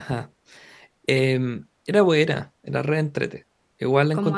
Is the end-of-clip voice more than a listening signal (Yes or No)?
No